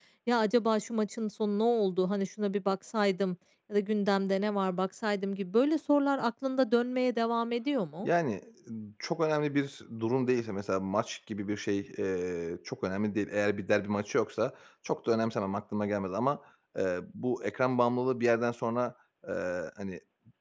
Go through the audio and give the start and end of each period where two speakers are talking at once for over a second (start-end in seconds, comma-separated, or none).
none